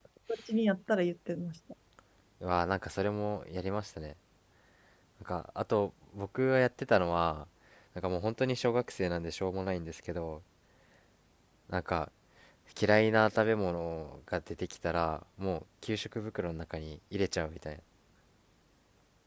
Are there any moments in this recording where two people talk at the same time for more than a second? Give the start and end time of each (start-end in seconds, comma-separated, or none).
none